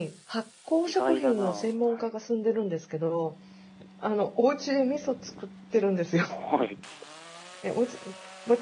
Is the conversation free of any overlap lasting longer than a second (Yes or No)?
No